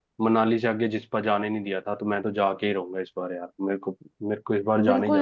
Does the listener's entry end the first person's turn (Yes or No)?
Yes